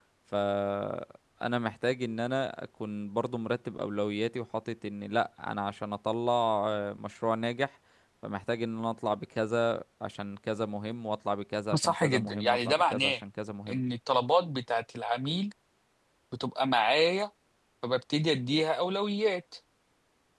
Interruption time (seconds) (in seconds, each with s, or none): 11.7 s